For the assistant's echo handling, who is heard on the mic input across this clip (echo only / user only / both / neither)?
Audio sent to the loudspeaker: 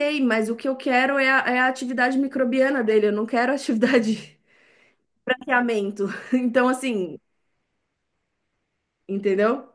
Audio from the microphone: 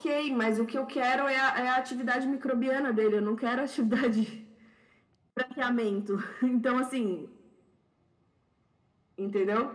echo only